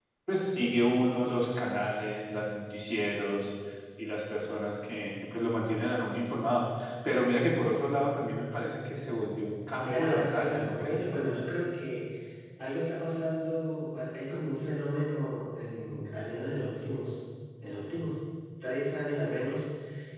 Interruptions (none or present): present